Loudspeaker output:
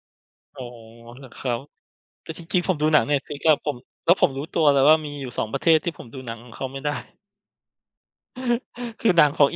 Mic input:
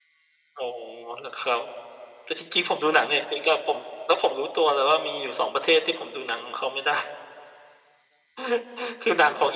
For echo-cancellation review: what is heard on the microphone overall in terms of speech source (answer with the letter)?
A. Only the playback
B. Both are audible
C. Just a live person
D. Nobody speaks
A